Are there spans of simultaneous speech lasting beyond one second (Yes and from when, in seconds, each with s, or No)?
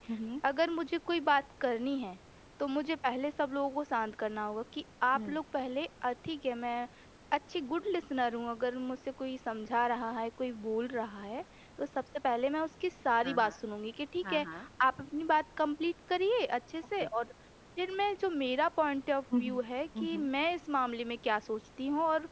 No